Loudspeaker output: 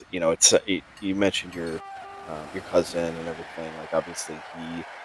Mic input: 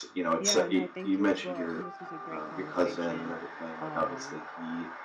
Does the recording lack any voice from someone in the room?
No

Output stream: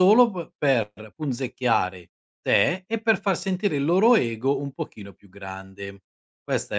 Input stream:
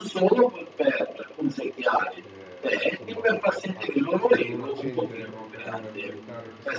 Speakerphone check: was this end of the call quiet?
No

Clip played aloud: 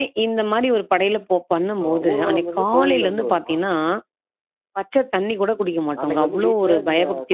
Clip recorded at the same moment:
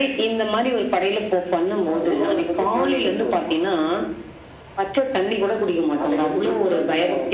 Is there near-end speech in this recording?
No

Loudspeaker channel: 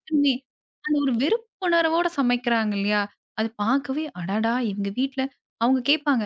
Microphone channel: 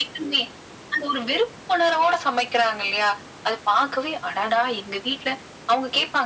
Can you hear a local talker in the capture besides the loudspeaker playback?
No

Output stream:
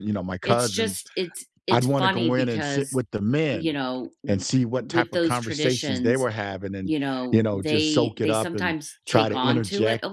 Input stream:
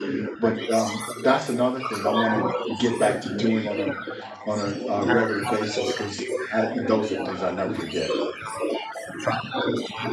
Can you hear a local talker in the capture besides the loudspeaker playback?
Yes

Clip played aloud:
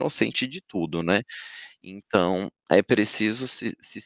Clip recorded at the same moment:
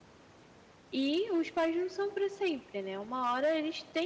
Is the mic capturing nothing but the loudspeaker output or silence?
No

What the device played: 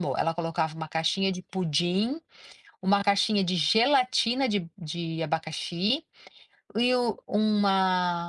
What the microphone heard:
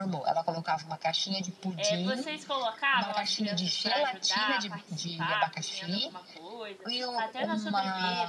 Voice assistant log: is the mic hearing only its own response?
No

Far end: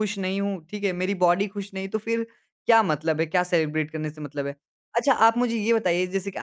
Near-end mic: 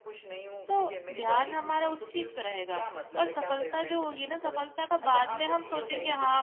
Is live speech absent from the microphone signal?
No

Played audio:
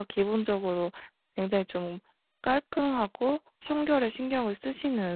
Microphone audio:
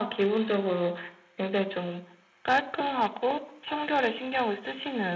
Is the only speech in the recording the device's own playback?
Yes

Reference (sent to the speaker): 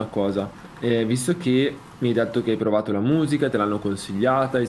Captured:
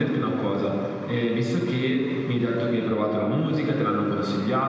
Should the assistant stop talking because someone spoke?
No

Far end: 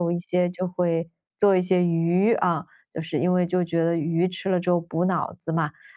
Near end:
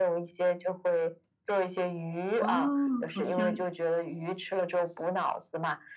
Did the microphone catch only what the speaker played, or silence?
No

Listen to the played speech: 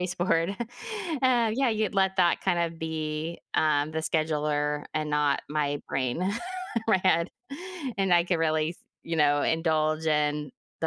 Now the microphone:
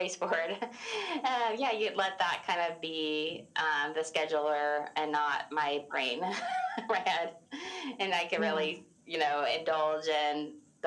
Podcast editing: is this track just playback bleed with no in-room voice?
No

